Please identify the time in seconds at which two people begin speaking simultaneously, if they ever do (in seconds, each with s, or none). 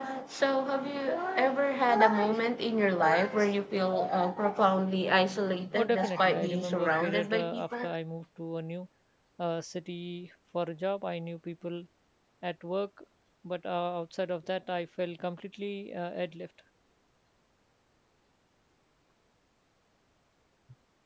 5.8 s